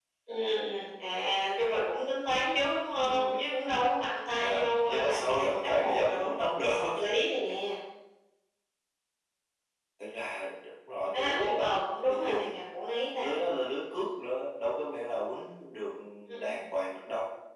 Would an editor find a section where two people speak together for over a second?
Yes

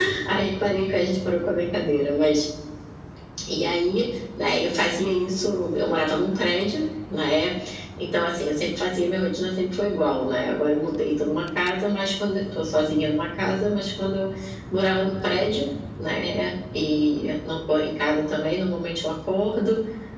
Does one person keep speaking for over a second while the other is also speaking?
No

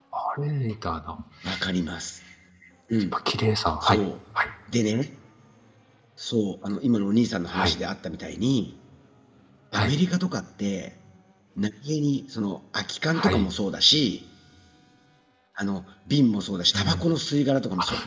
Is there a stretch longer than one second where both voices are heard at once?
No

